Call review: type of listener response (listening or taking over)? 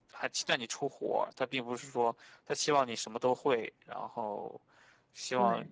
listening